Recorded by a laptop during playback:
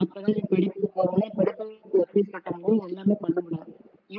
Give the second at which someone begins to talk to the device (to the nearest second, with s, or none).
none